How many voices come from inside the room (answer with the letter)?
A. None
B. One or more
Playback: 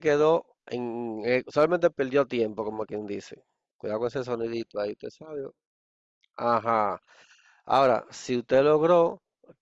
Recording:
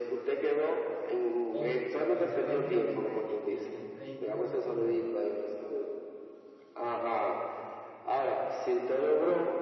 B